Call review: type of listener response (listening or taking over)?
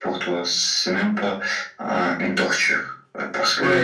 taking over